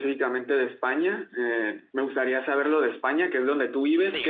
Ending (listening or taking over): listening